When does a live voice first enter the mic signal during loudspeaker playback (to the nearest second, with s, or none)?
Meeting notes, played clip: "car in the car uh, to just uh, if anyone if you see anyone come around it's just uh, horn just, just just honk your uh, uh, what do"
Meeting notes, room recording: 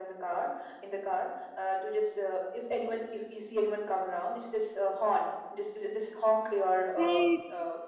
7 s